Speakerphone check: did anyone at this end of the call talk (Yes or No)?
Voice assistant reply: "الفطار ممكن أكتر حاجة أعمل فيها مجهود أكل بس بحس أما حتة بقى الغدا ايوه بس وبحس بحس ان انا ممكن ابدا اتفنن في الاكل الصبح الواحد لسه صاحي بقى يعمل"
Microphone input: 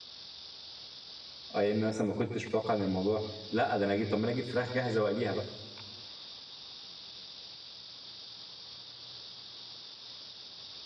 Yes